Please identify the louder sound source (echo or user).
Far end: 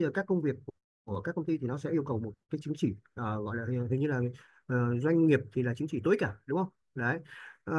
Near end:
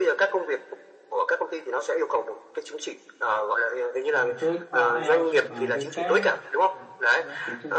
echo